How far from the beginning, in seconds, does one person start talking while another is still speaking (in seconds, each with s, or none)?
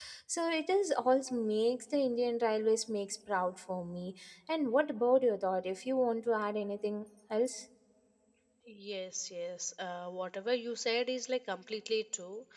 none